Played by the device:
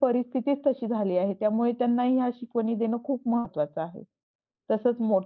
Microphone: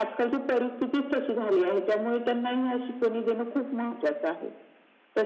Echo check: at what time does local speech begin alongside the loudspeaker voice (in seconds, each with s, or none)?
none